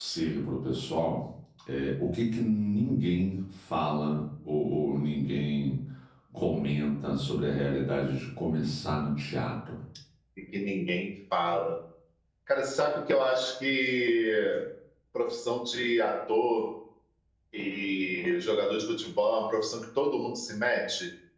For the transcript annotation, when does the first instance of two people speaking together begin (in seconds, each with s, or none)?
none